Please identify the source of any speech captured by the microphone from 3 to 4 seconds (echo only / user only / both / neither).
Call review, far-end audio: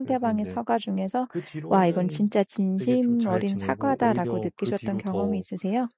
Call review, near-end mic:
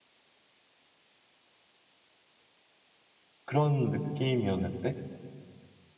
user only